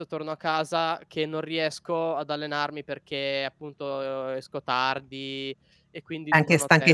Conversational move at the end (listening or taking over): taking over